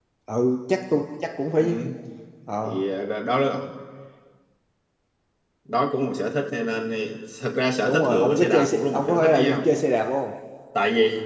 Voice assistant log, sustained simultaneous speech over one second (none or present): present